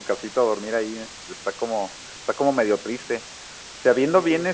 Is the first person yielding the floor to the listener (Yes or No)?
No